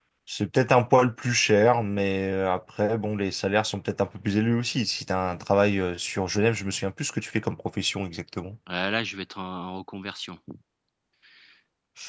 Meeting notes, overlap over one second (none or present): none